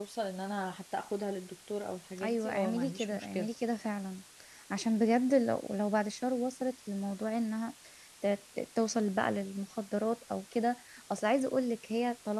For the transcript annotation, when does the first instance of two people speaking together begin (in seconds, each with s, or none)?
2.2 s